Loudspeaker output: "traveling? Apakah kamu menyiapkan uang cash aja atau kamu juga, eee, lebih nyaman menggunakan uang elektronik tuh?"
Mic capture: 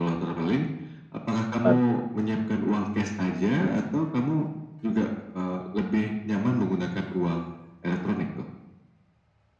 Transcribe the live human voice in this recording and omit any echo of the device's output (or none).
Apa tuh?